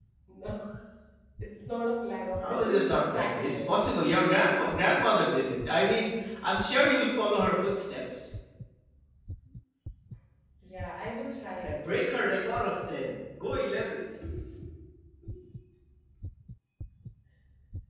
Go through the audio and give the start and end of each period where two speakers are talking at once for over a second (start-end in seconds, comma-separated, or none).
2.4-3.8